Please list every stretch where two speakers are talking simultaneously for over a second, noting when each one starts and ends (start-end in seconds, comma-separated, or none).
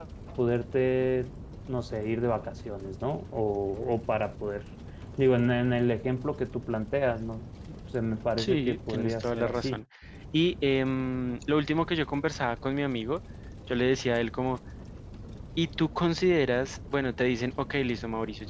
8.4-9.8